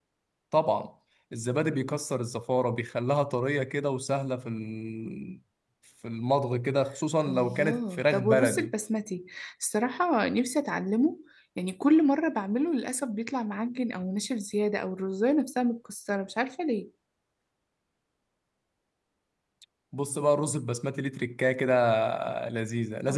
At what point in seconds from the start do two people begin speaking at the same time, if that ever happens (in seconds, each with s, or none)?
7.2 s